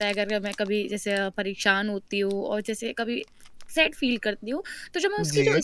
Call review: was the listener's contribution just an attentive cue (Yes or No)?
Yes